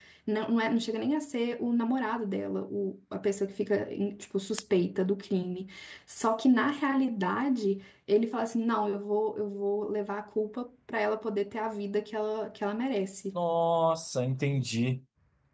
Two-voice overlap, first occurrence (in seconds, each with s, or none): none